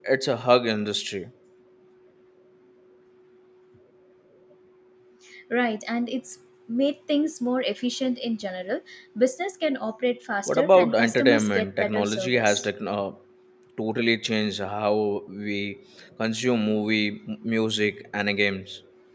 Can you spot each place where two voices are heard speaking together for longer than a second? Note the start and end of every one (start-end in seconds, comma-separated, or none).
10.5-12.7